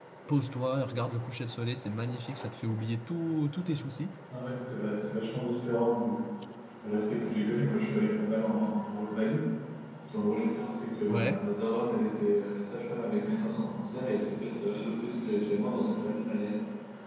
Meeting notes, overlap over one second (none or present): none